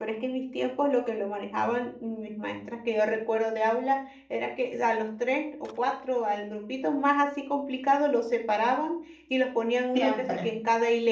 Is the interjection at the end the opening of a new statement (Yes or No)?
No